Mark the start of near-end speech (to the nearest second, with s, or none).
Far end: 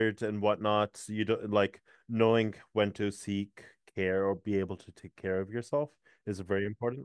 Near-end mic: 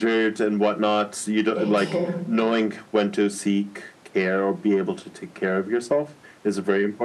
2 s